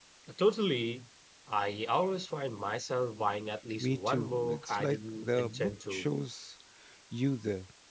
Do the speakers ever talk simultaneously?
Yes, from 3.8 s

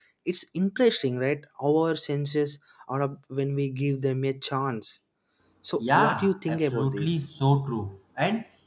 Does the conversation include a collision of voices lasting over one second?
Yes, from 5.8 s

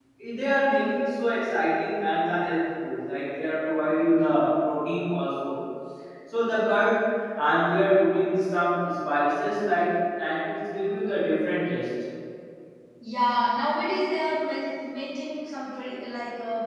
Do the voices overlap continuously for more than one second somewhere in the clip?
No

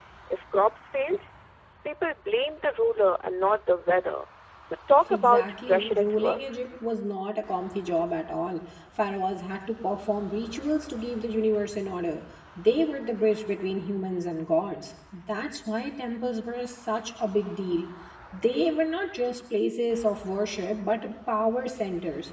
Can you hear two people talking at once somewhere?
Yes, from 5.0 s

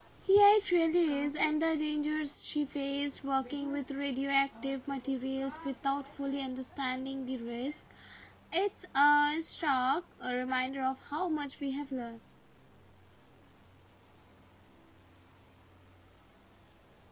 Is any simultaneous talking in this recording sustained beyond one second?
No

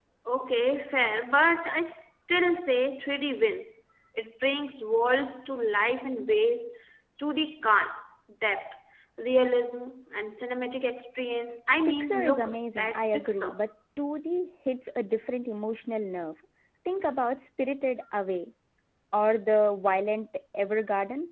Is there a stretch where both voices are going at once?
Yes, from 11.9 s

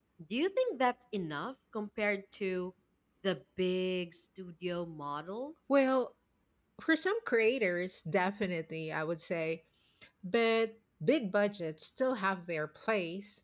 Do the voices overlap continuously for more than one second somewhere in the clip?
No

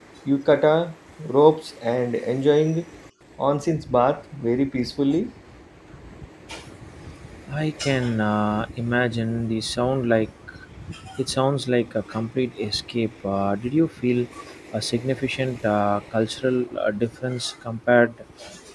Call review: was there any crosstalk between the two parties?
No

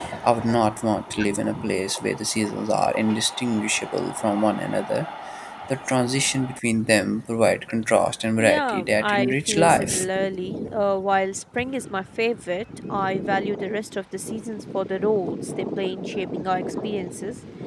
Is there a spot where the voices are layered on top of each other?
Yes, from 8.4 s

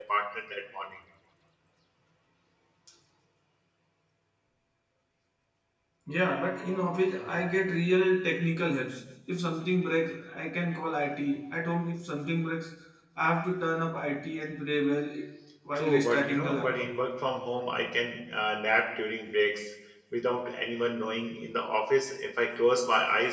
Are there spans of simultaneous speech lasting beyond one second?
Yes, from 15.7 s

